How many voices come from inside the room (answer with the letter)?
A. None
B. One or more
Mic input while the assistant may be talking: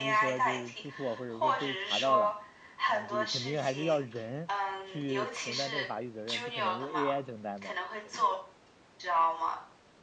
B